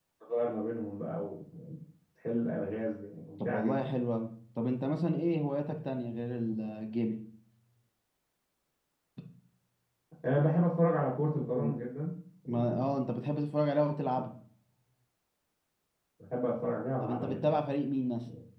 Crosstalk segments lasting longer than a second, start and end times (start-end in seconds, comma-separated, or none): none